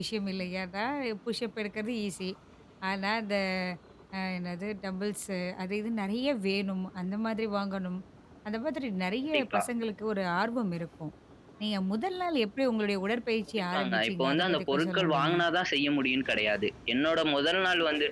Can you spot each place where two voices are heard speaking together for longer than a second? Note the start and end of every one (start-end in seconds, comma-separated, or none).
13.7-15.4